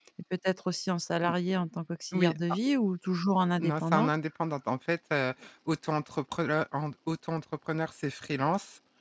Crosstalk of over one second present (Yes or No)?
No